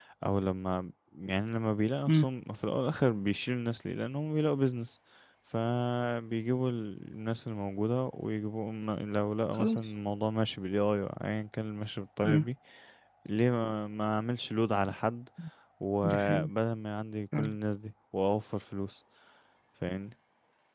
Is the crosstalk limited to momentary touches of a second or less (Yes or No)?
Yes